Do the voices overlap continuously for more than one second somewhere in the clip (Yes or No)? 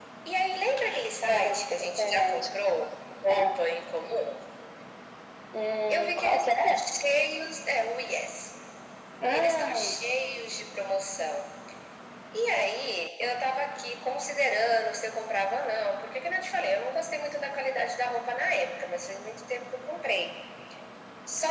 Yes